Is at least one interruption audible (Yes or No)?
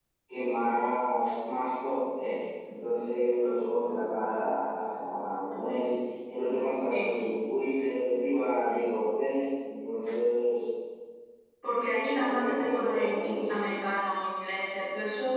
Yes